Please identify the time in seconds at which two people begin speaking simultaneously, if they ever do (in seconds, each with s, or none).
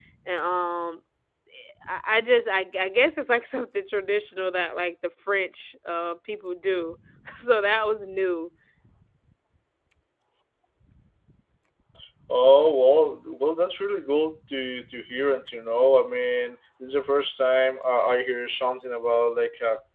none